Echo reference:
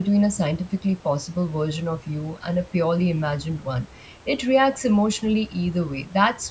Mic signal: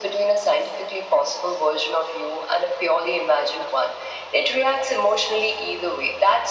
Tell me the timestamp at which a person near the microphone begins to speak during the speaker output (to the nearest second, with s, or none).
none